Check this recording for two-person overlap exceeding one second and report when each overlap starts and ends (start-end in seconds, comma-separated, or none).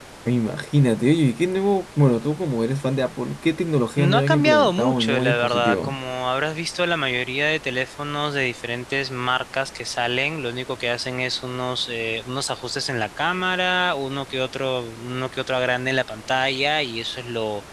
4.0-6.0